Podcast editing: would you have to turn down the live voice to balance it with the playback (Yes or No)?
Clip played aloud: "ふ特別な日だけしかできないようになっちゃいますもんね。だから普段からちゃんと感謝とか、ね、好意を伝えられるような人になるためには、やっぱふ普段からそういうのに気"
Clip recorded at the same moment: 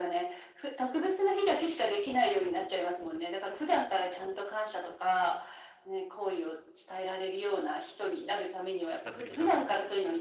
No